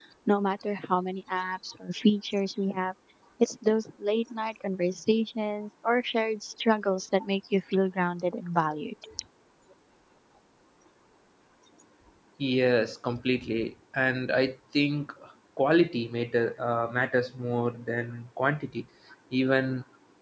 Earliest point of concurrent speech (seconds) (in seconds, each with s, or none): none